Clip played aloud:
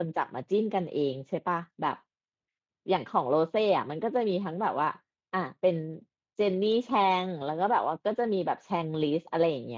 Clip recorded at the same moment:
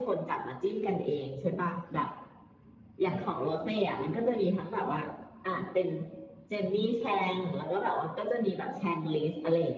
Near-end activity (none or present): none